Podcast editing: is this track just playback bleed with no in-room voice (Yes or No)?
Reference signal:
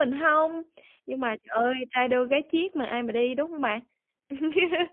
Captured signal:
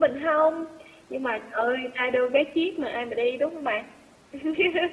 Yes